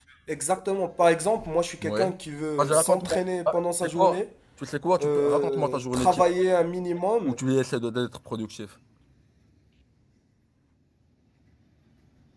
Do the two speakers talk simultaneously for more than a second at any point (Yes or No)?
Yes